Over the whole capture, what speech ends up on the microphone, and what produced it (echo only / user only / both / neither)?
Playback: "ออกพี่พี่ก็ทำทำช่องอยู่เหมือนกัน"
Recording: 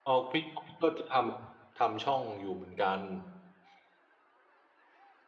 echo only